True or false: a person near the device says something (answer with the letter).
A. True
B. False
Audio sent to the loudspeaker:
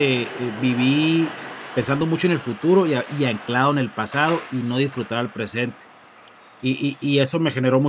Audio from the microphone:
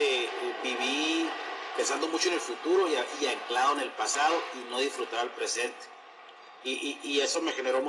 B